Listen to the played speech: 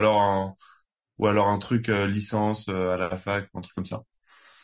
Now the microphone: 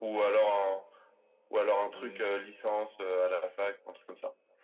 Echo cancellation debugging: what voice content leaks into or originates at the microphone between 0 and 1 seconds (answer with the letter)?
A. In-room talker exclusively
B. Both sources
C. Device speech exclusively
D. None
C